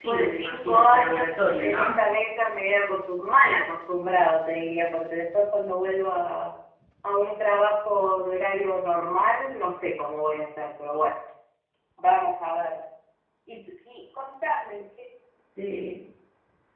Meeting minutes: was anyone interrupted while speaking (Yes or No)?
Yes